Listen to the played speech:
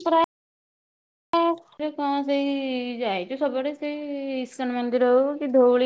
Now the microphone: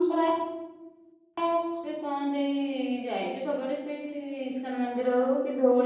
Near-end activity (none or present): none